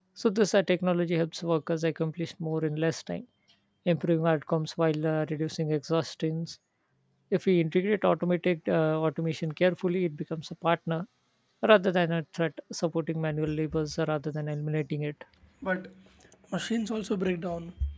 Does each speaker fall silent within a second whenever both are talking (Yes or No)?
Yes